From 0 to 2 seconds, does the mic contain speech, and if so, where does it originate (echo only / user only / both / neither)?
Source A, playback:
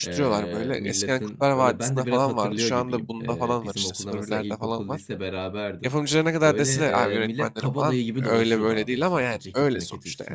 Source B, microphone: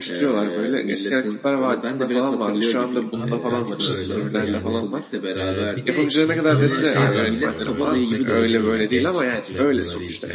echo only